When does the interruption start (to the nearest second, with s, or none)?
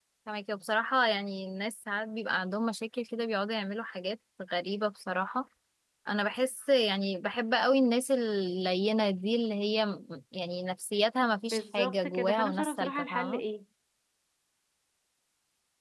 12 s